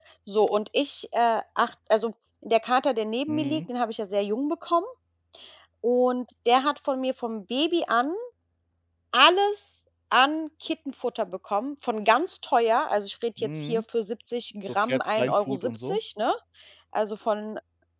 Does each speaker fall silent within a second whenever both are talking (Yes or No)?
No